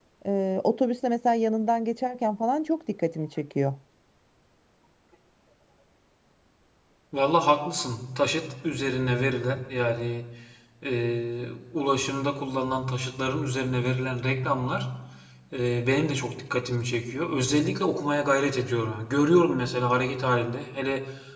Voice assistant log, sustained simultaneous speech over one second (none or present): none